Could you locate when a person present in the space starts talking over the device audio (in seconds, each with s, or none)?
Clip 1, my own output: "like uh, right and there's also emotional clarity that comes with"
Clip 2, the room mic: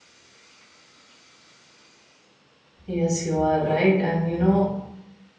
2.9 s